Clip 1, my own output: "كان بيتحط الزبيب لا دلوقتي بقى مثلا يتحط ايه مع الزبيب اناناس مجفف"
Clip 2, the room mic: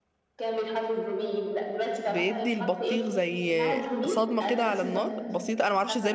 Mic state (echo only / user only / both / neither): both